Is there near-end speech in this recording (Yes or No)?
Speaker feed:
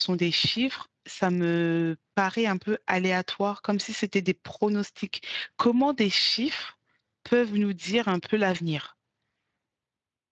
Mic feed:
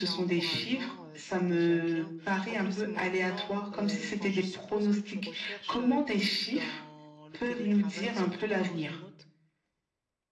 Yes